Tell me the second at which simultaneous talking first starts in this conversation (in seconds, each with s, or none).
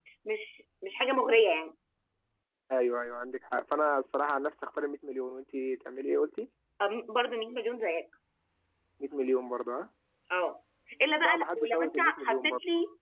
11.2 s